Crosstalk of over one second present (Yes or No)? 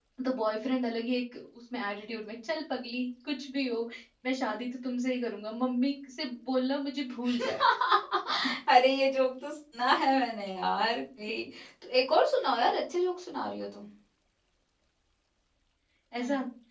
No